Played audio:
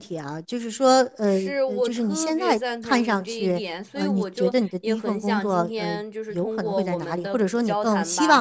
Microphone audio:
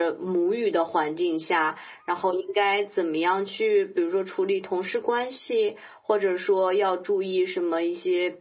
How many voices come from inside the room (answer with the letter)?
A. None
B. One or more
B